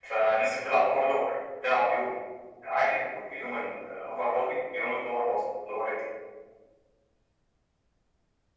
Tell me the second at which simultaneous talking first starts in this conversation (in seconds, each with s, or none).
none